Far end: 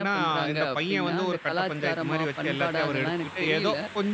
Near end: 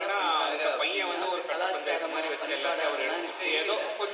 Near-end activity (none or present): none